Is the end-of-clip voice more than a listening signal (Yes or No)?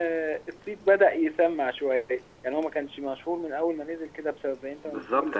Yes